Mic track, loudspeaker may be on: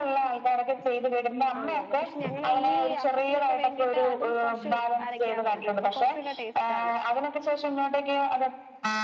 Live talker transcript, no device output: ആന് അതെ പക്ഷെ ഞങ്ങളീ ഈ അപ്പത്തിനൊക്ക വേണ്ടീട്ട് അതും കൊറച്ച് അരക്കാറൊണ്ട് അപ്പൊ കൊറച്ചൂട ടേസ്റ്റാണ്

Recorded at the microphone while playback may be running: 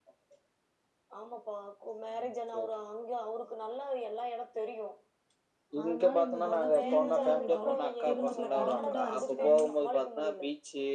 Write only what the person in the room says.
அதனால எங்களுக்கு இதெல்லா ஃப்ரீனால எங்களுக்கு அவ்வளவ் தெரிஞ்சுக்கல கடன மட்டு அடிச்சிட்டு கம்முனு

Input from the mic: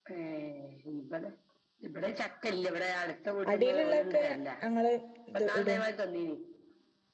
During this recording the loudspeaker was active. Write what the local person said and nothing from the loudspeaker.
അടിയില് ള്ളോ ക്കെ ഞങ്ങള് ഇത് ഇടും

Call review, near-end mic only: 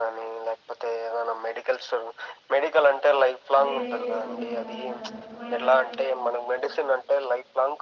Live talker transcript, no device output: బేర్ చేసుకొని ఉండాలన్నమాట ఒకవేళ

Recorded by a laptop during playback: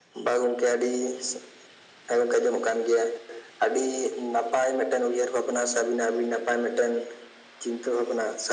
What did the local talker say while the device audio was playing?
none

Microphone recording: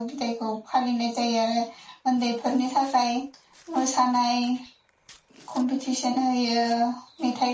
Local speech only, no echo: none

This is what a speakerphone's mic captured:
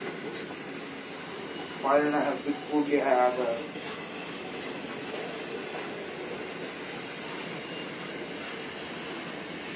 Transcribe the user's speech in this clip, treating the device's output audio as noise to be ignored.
ಕಳ್ಳನ ಬಿಟ್ಟ ಕೂಡ್ಲಿ ಅದ

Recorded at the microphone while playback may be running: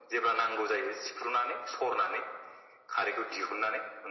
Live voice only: none

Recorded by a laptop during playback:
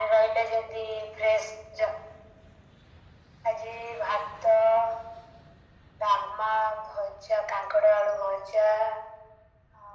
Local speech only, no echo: none

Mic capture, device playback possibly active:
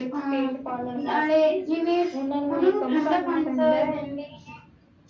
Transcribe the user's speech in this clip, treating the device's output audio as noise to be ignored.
none

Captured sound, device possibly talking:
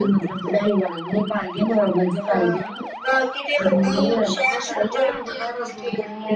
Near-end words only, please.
none

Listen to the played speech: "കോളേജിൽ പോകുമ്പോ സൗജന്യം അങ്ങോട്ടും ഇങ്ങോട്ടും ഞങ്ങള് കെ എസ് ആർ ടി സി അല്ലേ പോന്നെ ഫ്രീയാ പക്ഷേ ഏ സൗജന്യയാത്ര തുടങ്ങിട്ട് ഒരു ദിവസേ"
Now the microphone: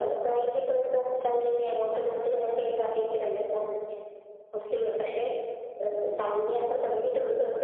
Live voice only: none

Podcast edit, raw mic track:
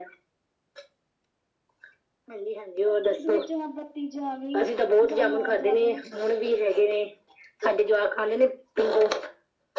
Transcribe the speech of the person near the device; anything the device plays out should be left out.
ਸਰਦੀ ਦੇ ਵਿੱਚ ਬੱਤੀ ਜਾਵੇ ਜਾਂ ਨਾ ਜਾਵੇ

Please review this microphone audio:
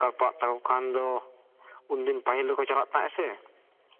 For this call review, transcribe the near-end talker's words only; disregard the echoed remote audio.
none

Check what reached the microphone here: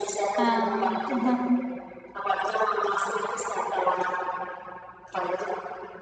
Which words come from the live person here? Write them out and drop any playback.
ആഹ് അഹഹ

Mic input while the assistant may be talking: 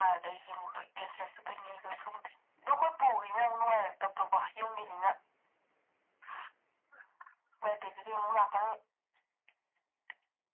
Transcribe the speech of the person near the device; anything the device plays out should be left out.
none

